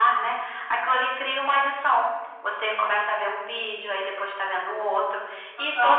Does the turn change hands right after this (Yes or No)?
No